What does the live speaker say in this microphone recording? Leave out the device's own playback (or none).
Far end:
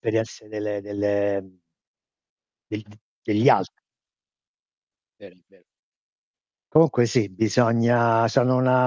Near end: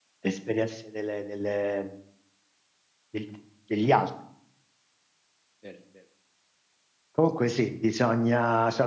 none